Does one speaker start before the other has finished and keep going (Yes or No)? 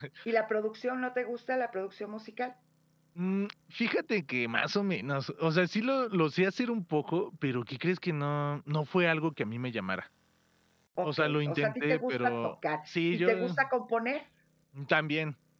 Yes